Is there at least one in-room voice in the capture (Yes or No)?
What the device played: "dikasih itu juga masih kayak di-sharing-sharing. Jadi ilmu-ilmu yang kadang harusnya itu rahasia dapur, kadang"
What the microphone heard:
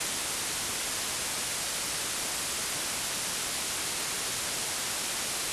No